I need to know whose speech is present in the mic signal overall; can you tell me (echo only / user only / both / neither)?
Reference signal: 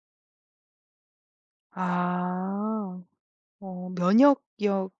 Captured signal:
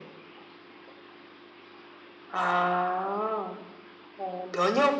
echo only